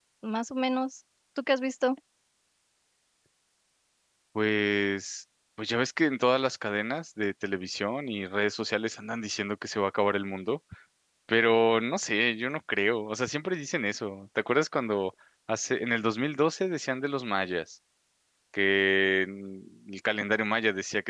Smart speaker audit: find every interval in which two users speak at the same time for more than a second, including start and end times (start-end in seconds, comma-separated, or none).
none